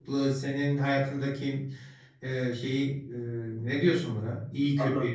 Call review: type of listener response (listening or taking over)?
taking over